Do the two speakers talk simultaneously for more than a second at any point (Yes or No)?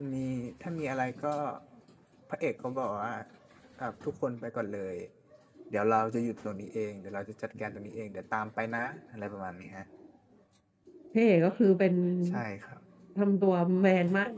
No